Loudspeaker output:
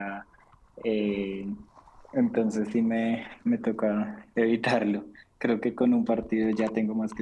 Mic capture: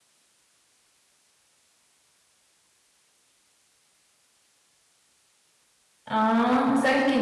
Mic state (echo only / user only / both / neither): user only